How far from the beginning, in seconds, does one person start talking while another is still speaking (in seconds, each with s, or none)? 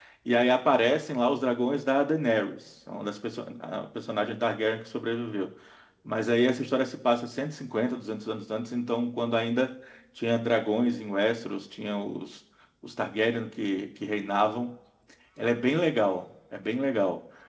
none